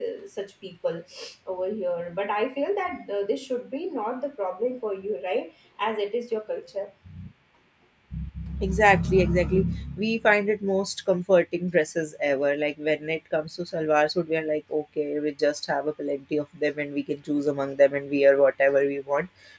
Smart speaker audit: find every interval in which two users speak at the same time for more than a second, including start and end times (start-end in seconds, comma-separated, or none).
none